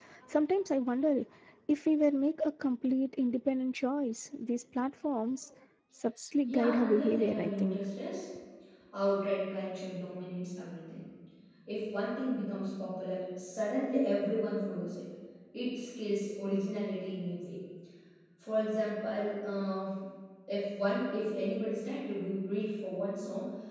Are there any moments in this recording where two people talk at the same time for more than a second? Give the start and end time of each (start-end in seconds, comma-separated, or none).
6.5-7.8